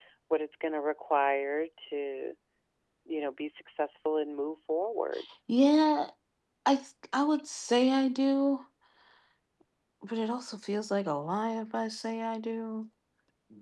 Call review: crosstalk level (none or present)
none